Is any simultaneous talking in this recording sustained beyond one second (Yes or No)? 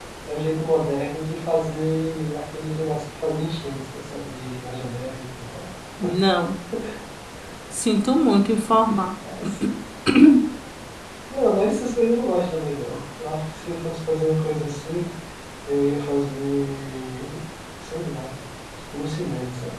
No